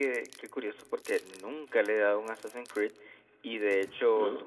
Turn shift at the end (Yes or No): No